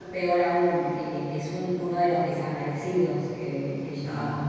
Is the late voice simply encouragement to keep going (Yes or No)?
Yes